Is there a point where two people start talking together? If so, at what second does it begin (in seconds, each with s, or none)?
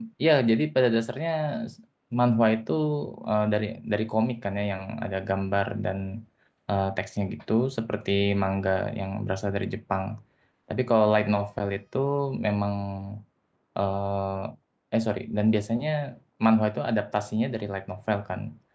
none